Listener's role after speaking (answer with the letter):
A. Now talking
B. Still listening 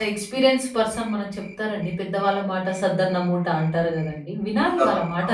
A